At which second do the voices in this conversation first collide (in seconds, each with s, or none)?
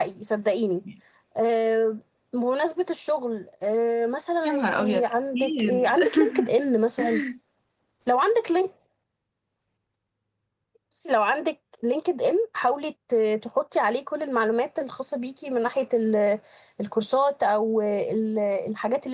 4.5 s